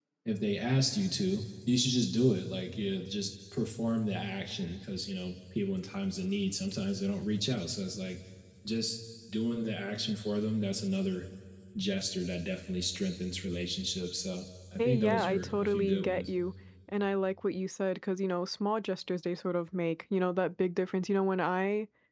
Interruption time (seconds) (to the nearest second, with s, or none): 15 s